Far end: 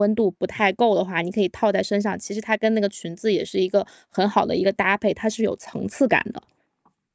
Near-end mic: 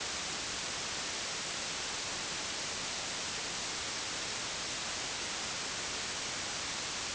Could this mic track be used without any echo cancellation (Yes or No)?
Yes